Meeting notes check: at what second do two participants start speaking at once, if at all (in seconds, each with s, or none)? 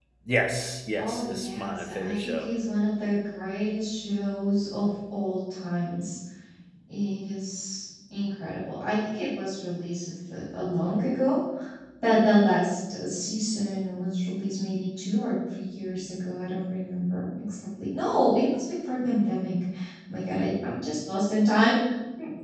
1.0 s